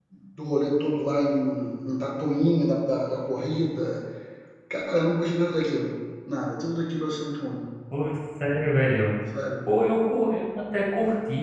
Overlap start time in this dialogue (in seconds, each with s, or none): none